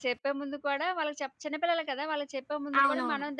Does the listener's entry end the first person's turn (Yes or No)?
No